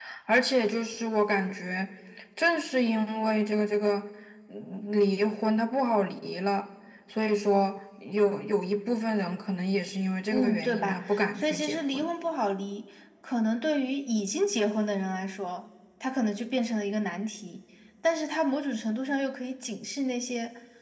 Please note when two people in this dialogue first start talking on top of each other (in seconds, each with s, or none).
10.3 s